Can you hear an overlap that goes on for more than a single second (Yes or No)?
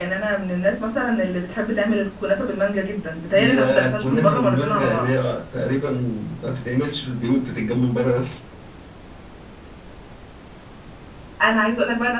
Yes